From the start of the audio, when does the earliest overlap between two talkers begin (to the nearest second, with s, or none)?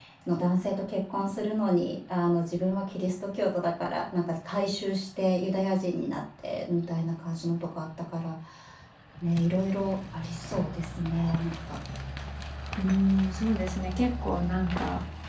none